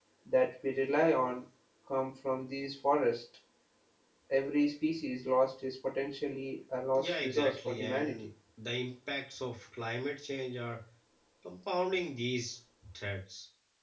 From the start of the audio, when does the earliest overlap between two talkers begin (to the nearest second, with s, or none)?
7 s